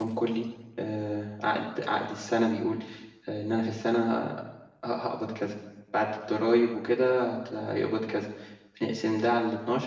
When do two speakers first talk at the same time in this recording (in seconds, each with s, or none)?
none